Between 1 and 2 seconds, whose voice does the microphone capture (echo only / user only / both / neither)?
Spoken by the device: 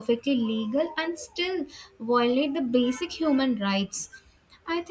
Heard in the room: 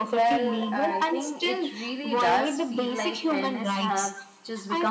both